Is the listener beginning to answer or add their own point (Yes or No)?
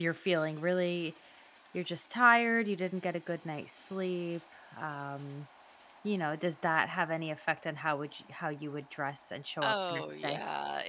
Yes